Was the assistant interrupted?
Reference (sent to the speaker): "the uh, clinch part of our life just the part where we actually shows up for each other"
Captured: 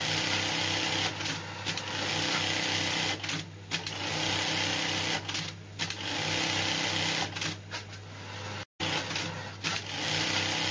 No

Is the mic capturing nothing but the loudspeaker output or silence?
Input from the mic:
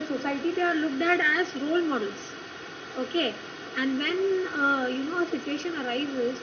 Yes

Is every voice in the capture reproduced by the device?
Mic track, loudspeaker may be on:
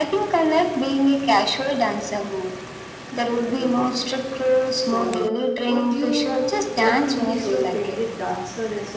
No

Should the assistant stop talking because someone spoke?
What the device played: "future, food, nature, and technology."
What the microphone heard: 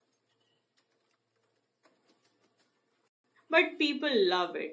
Yes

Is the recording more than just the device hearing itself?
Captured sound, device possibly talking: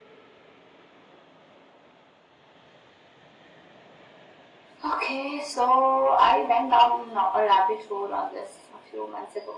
No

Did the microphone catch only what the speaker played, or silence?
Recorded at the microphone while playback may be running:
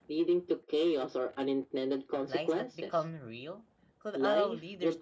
No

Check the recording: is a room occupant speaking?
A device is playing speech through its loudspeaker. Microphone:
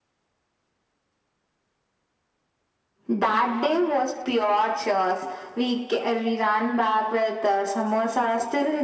No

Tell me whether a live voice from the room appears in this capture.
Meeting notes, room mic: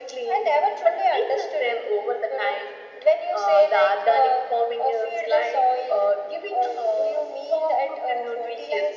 No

